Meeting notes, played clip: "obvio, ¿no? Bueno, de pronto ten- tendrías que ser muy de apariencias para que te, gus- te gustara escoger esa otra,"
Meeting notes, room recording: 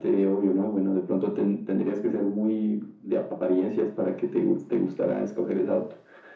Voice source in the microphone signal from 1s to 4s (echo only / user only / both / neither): echo only